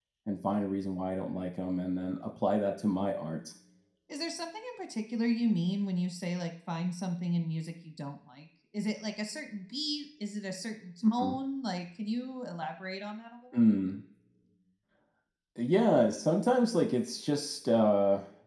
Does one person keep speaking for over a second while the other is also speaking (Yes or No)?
No